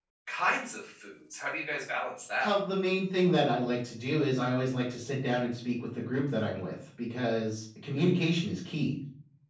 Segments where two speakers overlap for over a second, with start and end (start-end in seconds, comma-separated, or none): none